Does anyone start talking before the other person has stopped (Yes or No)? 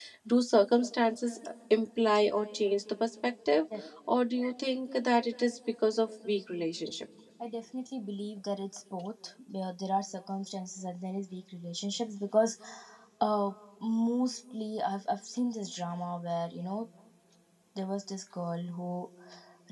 No